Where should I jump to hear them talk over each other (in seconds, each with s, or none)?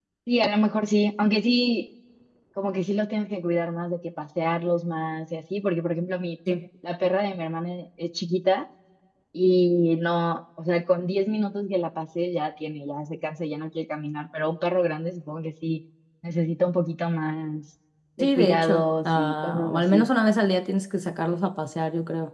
18.2 s